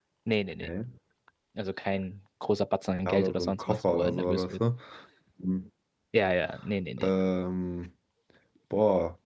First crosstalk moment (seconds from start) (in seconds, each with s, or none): 3.1 s